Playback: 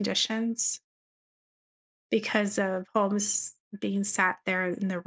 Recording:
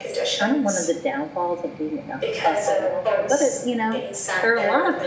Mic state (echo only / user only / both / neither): both